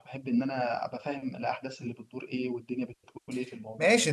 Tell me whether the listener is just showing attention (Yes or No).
No